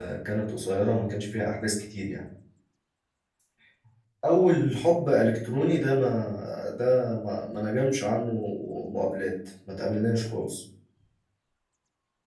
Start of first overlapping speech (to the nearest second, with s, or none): none